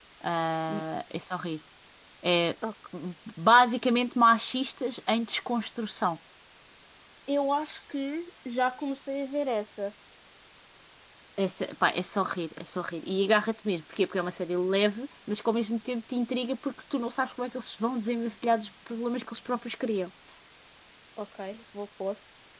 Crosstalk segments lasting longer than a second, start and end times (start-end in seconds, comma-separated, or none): none